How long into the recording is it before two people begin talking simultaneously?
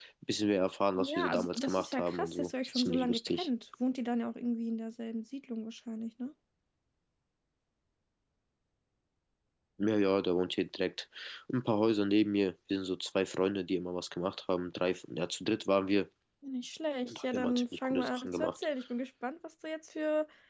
1.0 s

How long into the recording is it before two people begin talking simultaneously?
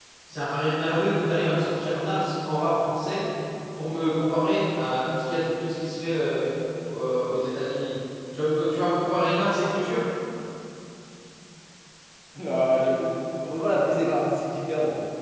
none

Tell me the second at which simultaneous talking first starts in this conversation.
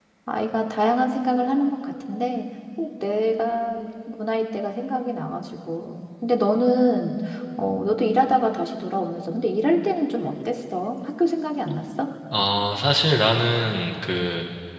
none

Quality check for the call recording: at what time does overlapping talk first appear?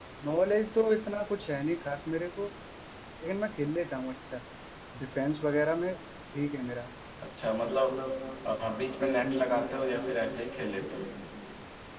none

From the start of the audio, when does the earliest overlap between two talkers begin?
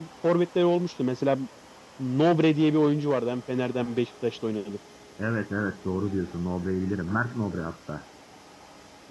none

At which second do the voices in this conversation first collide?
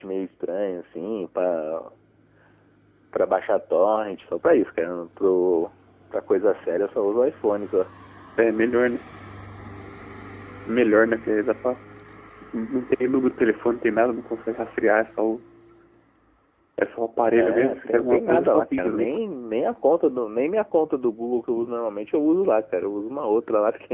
17.3 s

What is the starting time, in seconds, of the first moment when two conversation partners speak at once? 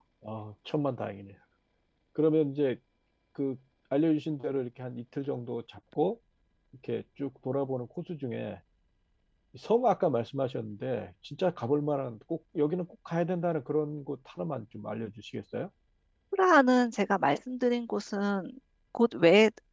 none

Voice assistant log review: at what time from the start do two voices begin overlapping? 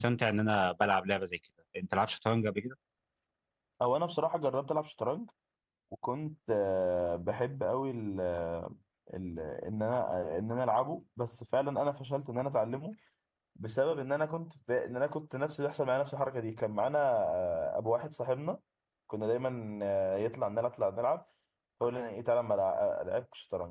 none

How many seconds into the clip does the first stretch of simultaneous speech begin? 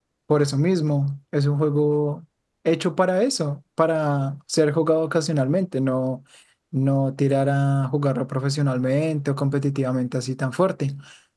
none

